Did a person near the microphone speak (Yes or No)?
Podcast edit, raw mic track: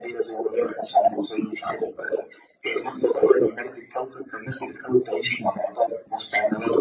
No